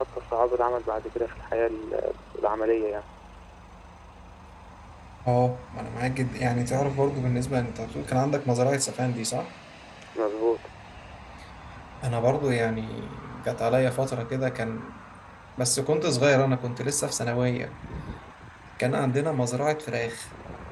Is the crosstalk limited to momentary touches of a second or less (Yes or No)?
Yes